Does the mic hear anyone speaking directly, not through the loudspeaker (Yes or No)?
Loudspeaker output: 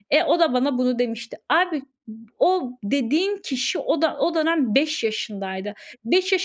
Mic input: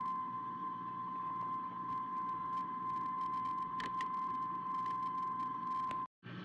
No